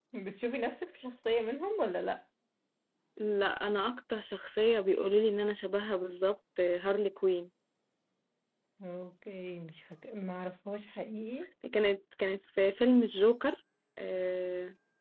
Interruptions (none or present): none